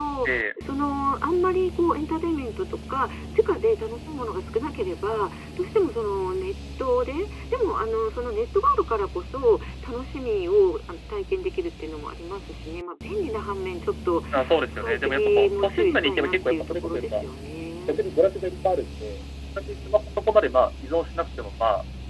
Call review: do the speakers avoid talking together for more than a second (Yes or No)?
No